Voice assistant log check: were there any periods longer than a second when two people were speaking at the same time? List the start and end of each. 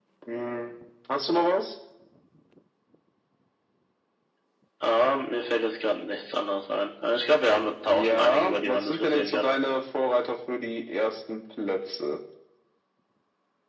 7.9-9.5

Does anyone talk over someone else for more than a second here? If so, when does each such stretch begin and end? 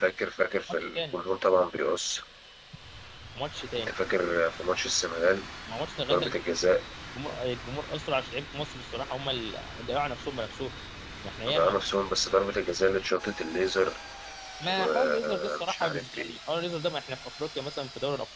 14.7-16.4

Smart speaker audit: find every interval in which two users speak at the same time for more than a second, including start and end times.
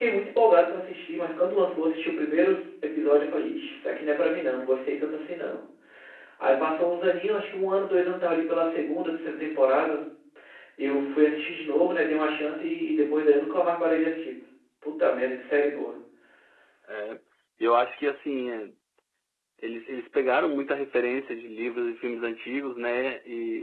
none

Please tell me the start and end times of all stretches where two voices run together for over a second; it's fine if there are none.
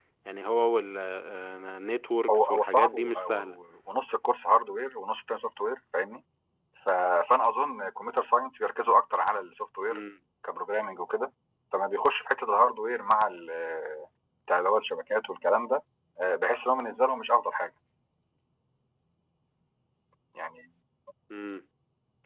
2.3-3.6

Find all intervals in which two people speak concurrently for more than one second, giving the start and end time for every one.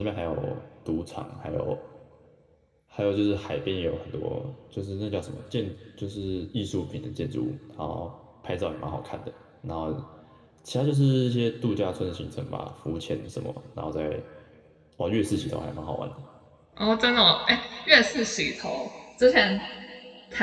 none

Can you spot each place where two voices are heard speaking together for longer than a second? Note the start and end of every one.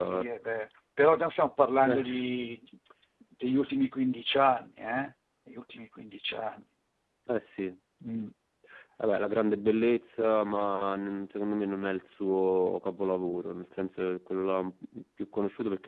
none

